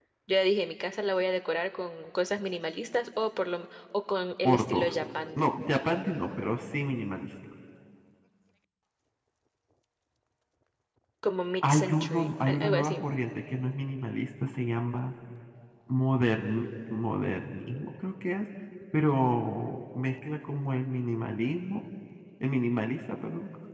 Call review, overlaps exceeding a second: present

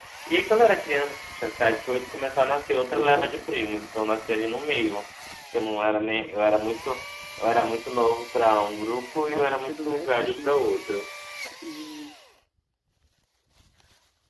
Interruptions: present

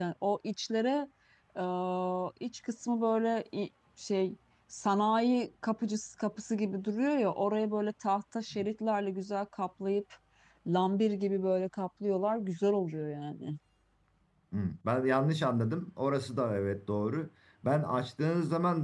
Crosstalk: none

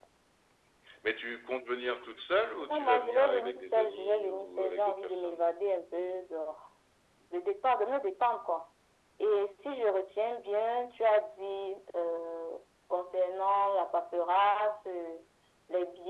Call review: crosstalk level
present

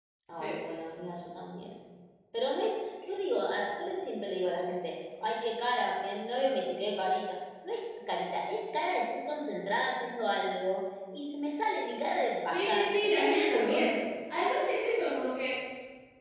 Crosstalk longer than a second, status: present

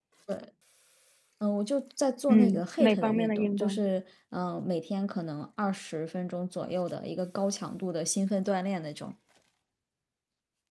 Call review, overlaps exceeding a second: present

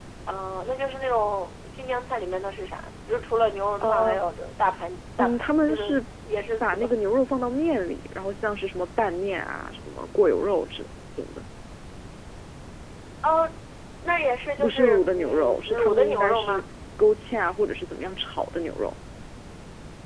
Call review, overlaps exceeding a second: present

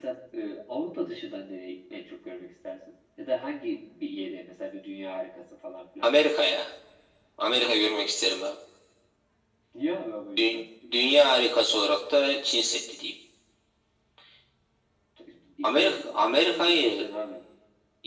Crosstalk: present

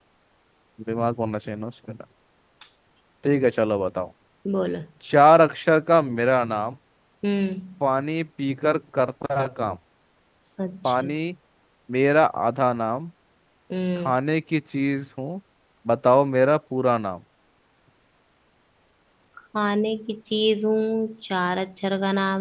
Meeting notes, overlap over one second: none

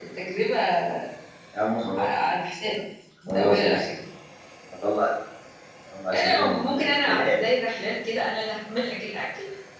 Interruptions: present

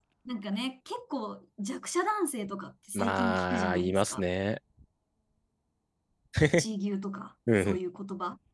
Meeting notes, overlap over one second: present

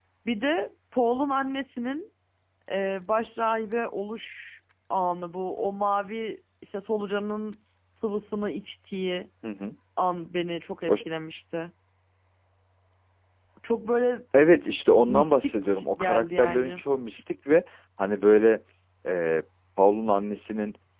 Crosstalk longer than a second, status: present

